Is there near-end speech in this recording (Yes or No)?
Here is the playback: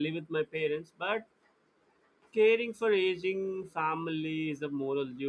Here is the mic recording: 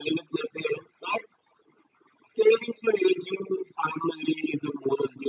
No